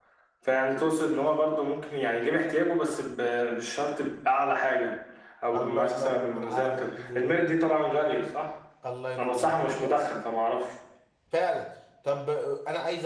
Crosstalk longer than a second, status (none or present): present